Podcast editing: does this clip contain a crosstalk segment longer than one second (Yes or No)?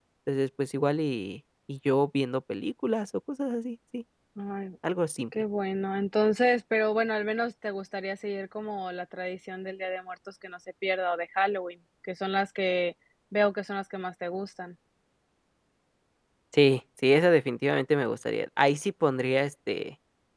No